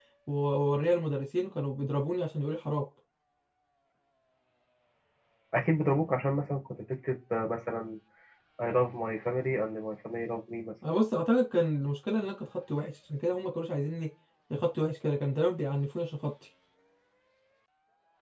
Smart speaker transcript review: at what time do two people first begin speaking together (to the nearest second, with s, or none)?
none